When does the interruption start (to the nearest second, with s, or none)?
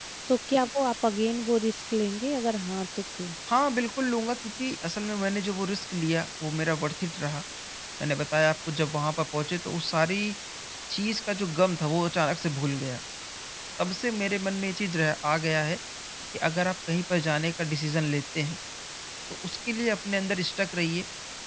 none